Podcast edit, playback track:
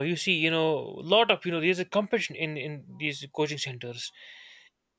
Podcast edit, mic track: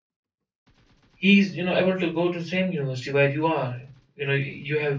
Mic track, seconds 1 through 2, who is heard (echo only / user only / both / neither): user only